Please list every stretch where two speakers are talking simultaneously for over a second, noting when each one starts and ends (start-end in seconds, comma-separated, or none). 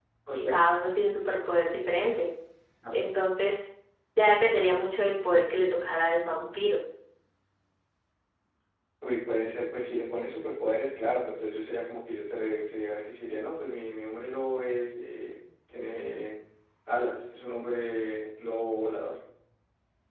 none